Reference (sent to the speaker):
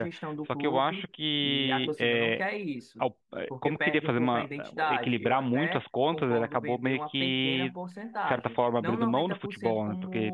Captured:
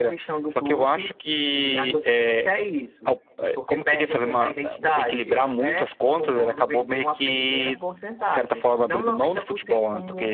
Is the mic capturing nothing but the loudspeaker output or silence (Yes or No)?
Yes